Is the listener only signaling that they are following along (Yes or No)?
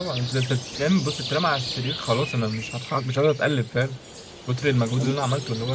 Yes